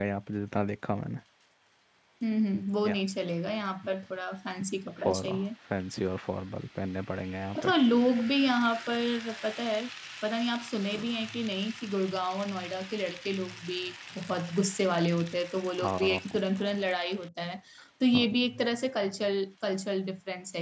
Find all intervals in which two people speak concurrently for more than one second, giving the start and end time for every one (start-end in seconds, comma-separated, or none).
none